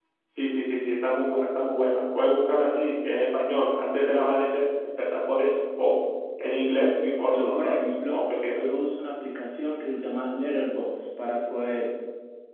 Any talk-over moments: Yes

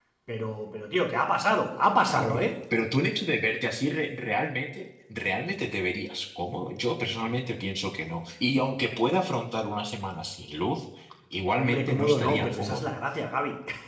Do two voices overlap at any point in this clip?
Yes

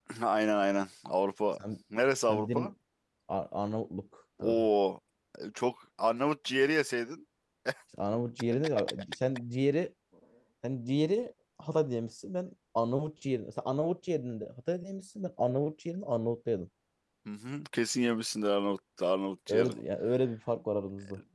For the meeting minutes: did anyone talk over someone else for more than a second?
No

